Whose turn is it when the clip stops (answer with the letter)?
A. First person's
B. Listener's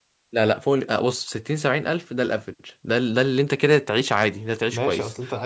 B